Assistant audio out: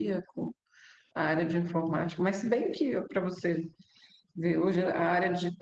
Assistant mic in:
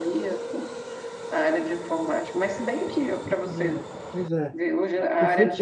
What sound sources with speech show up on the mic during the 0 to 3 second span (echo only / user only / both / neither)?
echo only